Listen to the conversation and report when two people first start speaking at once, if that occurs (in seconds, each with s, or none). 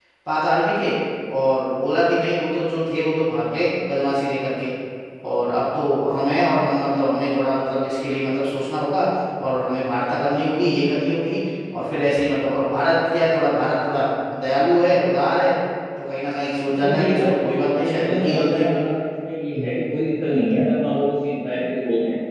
16.7 s